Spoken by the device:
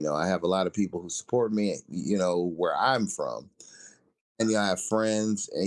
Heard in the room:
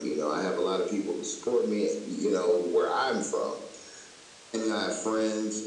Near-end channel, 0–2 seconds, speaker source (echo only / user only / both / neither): echo only